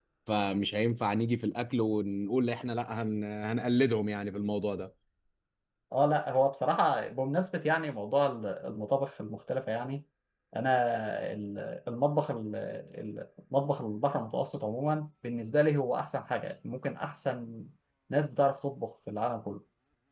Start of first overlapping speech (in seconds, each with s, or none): none